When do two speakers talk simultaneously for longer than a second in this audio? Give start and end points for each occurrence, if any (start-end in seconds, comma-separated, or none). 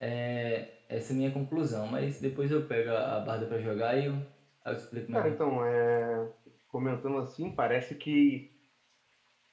none